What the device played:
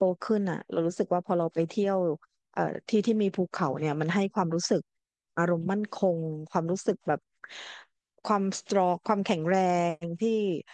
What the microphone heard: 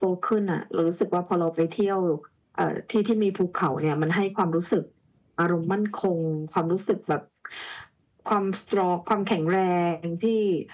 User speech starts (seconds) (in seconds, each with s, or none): none